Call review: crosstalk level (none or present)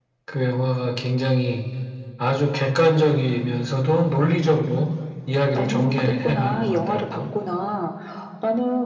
present